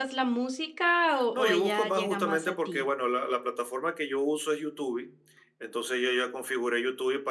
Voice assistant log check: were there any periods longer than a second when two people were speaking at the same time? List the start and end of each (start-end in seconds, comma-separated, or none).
1.3-2.8